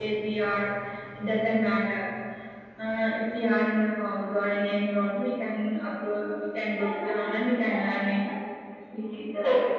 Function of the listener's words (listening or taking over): taking over